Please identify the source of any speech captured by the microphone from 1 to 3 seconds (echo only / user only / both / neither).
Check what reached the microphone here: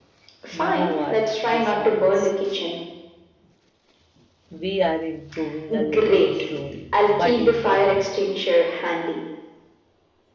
both